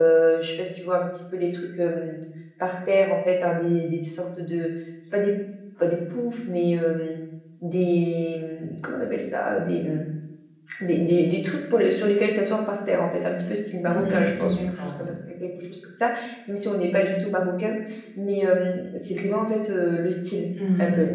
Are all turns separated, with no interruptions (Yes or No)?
No